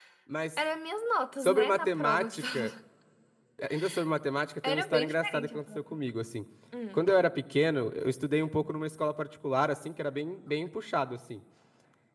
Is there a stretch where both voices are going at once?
Yes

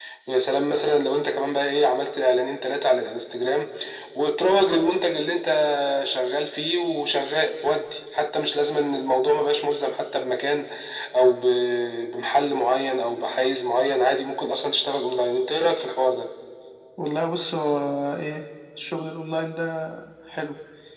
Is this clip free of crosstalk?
Yes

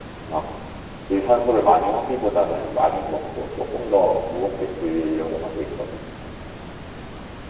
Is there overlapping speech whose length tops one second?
No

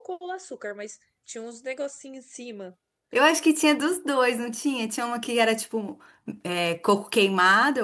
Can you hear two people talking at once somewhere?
No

